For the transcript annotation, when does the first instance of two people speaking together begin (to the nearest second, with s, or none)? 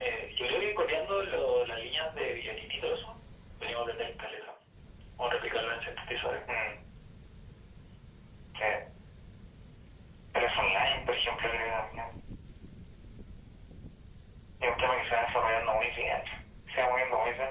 none